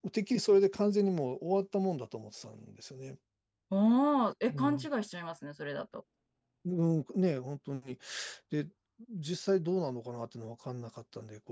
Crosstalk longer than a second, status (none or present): none